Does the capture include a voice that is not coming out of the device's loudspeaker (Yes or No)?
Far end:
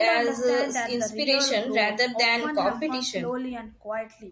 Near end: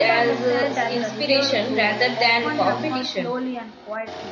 No